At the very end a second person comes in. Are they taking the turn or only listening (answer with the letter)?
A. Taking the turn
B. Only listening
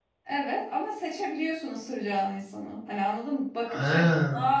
B